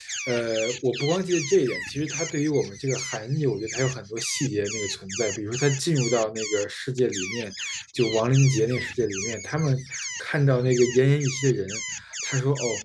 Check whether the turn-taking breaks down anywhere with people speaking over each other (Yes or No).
No